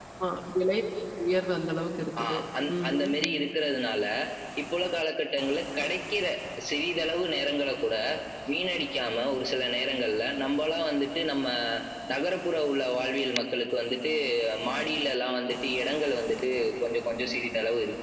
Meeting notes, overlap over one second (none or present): none